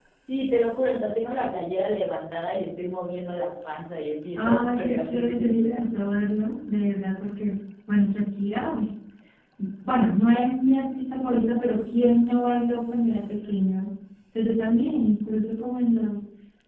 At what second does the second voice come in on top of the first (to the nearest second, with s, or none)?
4 s